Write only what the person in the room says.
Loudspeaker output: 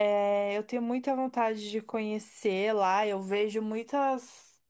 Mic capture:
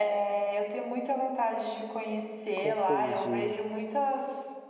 Confundi.

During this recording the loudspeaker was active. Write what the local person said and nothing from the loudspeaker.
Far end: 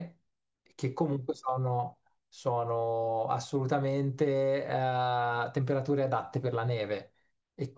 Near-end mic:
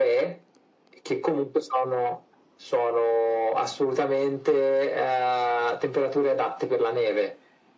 none

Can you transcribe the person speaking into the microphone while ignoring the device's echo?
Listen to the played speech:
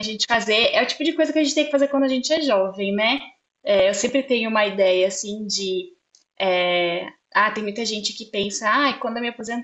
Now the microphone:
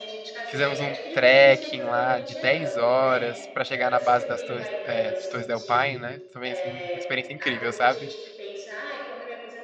Fizemos um trekking lá de 10 horas pra chegar na base das Torres, é, de Torres del Paine, né? Também, assim, uma experiência incrível, sabe?

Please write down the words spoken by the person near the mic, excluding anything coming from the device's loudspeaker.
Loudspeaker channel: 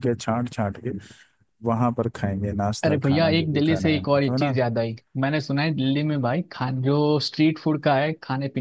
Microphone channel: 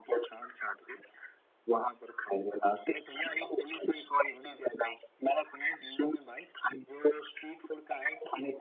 none

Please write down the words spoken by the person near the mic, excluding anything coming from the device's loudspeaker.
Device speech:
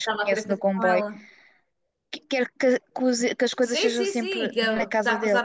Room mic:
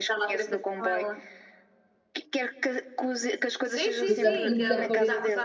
Tudo a muito da parede.

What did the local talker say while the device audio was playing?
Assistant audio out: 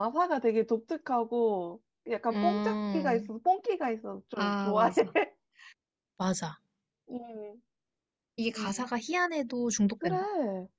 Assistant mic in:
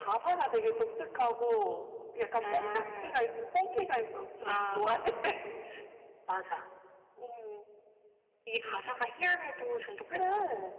none

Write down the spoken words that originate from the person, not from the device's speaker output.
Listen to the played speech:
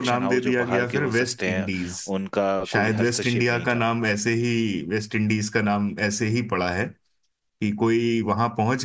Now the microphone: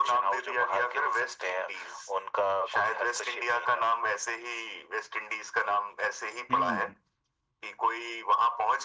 हम्म

